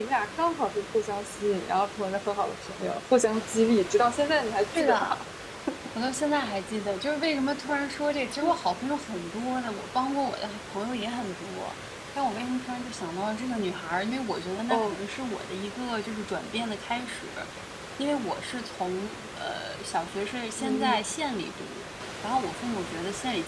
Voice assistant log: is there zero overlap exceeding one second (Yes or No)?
Yes